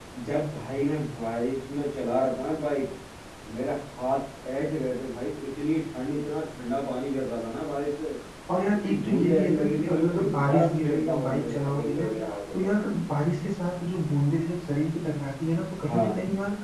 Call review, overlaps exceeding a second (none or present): present